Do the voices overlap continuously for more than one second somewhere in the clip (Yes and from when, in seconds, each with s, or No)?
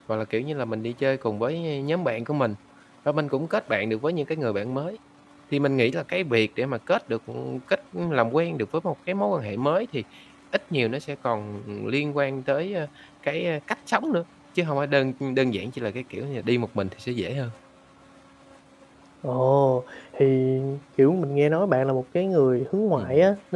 No